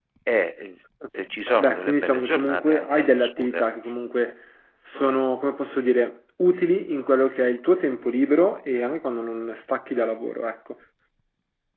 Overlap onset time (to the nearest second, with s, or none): 2 s